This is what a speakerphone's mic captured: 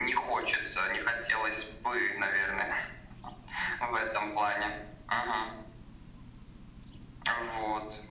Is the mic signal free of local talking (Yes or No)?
Yes